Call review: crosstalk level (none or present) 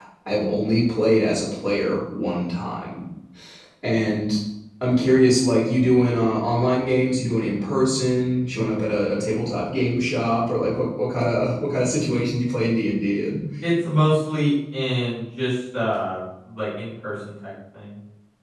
none